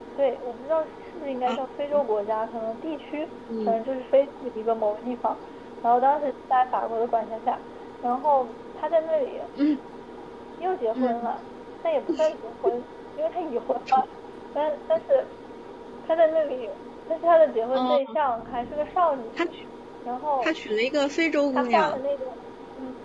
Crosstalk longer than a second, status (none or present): none